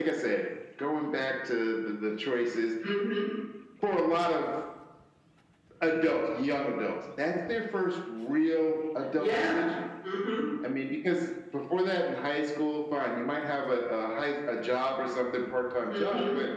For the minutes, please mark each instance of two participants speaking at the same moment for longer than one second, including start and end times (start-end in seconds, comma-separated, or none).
none